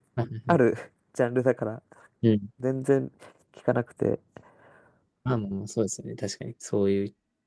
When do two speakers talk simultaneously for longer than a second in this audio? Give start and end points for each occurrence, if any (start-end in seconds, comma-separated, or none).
none